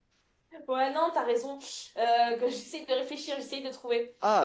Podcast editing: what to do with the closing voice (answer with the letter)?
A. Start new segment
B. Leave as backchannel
A